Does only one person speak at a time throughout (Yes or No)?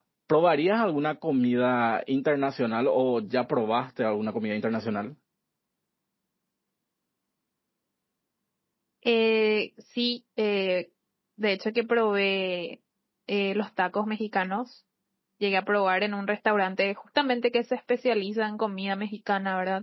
Yes